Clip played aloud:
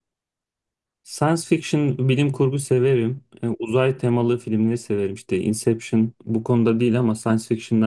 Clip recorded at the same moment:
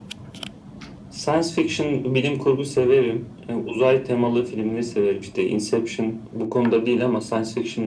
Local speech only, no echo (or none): none